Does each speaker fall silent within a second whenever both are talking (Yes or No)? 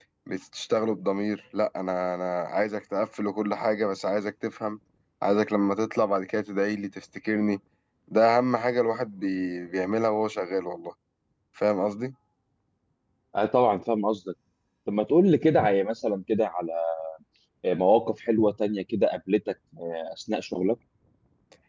Yes